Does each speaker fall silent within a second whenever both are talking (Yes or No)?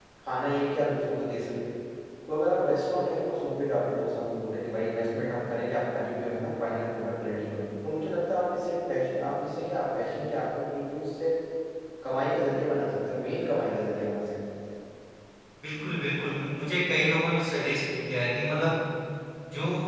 Yes